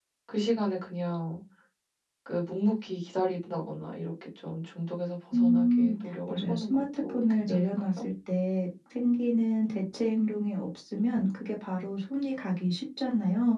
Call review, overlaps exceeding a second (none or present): present